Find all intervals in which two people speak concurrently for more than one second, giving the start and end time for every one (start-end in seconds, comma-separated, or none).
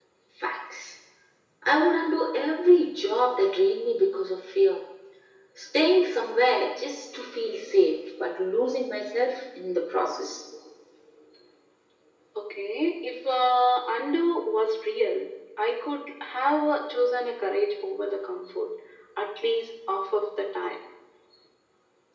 none